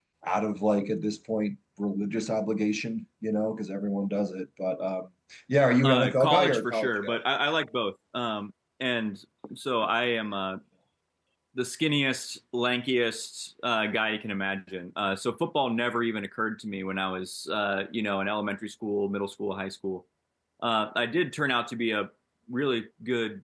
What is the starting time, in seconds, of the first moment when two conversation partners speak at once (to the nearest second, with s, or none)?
6 s